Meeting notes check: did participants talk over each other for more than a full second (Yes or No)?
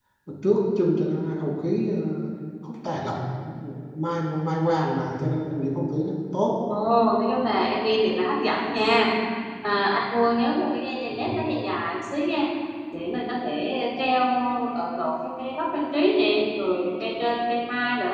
No